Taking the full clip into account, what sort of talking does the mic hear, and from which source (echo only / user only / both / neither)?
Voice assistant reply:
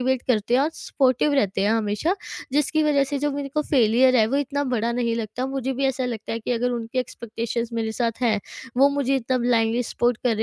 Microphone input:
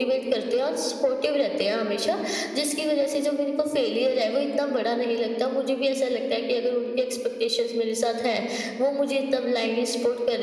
echo only